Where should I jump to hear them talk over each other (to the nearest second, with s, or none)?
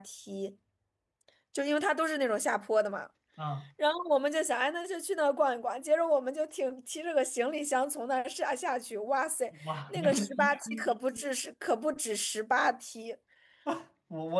10 s